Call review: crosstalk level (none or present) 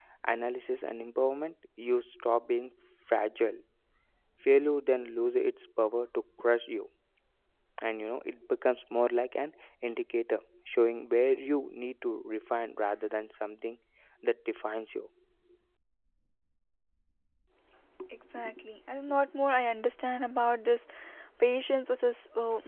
none